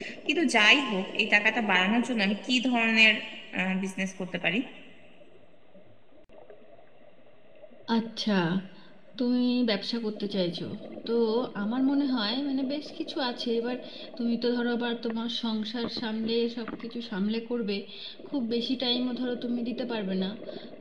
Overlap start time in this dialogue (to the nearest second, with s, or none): none